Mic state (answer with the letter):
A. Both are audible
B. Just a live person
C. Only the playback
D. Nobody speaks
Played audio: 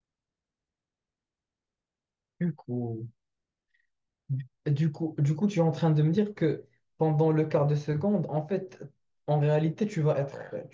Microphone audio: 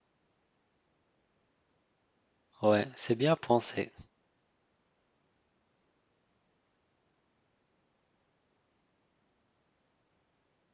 B